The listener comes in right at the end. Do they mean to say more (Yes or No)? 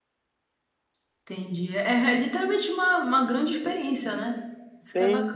Yes